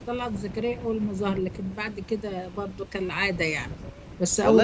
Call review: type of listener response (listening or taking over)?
taking over